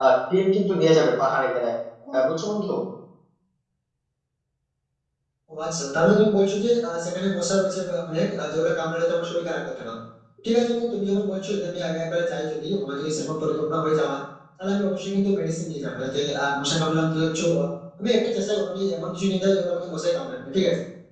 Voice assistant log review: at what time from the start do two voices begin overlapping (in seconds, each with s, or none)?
none